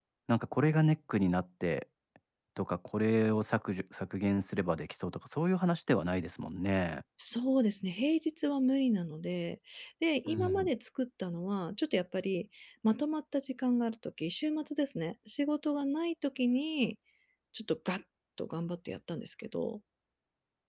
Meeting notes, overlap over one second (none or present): none